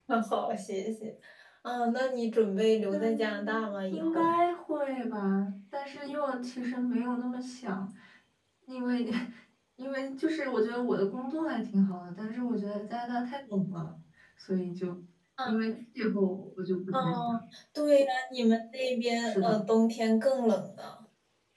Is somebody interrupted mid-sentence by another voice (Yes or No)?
Yes